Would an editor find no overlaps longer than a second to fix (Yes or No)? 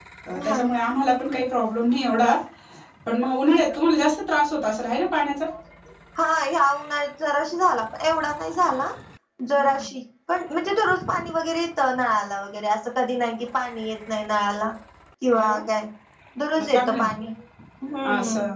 Yes